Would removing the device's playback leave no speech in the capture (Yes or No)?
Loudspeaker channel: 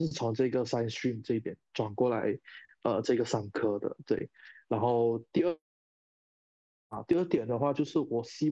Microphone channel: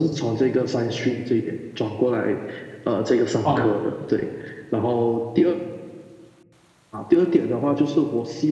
No